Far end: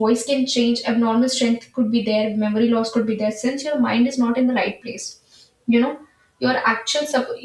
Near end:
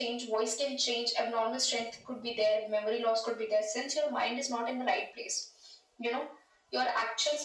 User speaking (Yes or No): No